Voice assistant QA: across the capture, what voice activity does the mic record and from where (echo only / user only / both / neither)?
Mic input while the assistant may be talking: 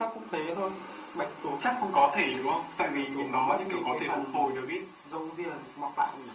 echo only